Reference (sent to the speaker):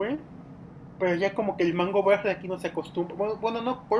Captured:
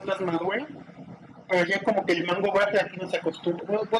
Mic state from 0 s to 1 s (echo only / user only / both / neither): echo only